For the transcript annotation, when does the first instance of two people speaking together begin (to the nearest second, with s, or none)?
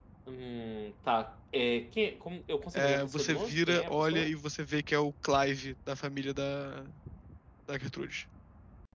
3 s